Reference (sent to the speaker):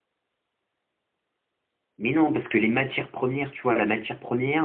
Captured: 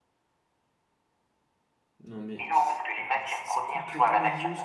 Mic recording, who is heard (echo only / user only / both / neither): both